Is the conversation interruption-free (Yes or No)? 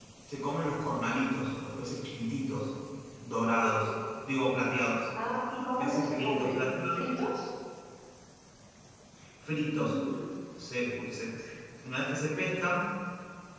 No